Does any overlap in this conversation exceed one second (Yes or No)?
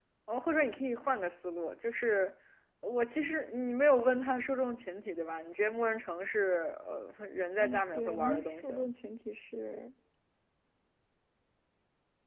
Yes